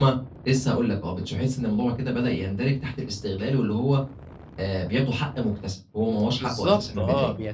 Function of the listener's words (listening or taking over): taking over